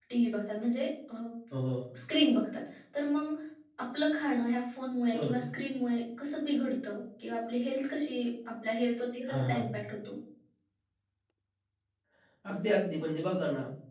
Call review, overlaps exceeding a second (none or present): none